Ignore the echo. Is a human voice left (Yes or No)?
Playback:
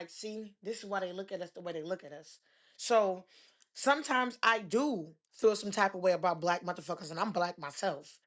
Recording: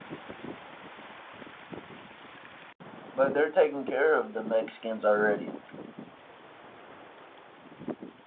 Yes